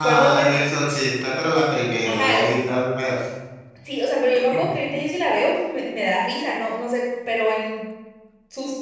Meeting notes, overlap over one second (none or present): none